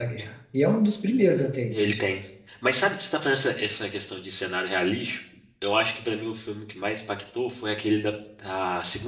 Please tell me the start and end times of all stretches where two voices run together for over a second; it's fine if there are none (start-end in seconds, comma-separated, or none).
none